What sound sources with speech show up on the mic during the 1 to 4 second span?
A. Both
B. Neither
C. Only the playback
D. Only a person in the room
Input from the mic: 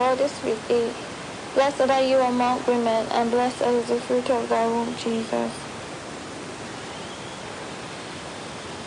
C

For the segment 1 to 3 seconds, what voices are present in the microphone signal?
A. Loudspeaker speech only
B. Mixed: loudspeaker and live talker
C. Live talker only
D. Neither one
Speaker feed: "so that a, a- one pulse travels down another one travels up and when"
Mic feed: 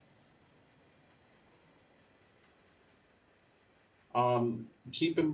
D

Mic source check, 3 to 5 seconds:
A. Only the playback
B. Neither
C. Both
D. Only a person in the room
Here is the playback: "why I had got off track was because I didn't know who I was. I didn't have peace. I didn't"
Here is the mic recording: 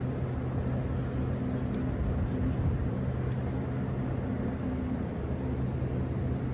B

